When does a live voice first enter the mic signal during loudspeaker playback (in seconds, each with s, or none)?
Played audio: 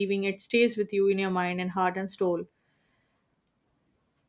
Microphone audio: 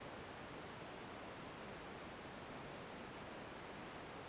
none